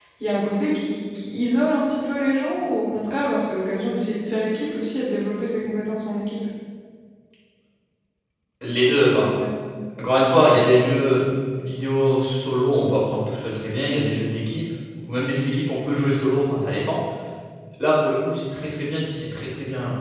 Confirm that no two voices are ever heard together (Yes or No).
Yes